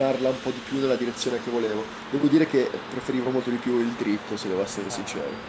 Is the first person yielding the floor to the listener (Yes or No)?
Yes